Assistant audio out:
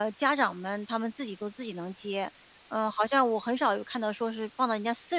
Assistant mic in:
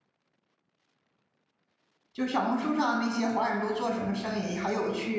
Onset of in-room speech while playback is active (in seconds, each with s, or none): 2.1 s